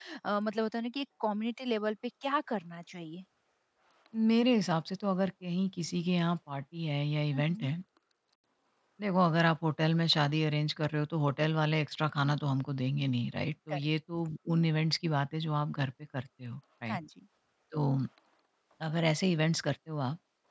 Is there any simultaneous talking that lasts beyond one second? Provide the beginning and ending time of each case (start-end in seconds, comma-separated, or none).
none